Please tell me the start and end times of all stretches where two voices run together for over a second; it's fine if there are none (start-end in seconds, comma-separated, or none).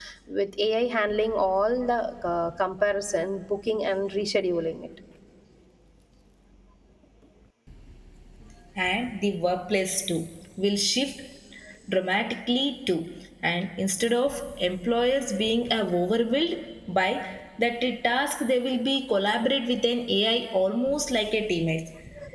none